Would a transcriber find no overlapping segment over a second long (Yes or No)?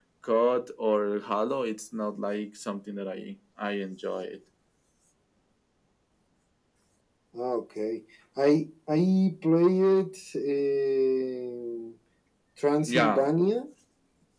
Yes